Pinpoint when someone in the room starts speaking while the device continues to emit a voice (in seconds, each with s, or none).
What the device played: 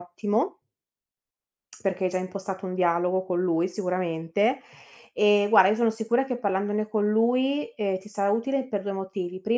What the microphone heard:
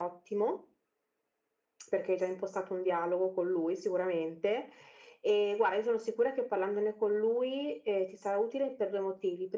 none